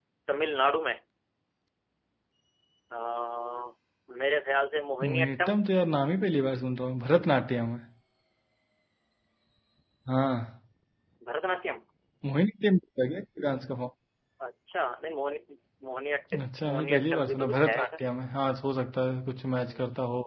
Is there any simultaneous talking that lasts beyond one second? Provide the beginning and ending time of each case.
16.6-18.0

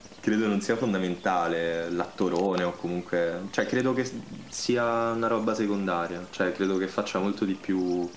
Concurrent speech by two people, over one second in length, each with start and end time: none

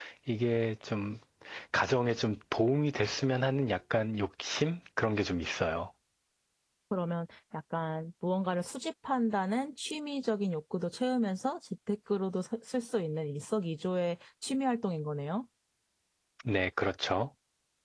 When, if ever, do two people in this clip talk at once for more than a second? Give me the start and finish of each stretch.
none

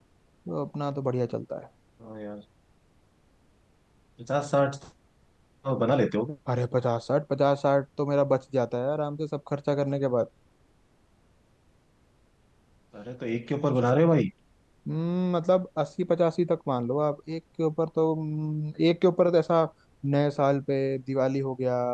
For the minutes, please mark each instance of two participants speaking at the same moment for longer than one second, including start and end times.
none

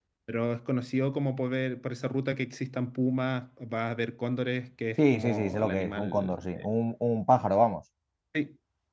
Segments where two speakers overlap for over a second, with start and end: 5.0-6.4

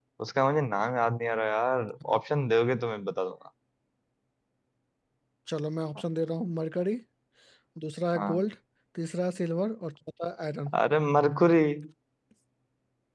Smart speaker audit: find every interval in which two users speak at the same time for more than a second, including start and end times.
none

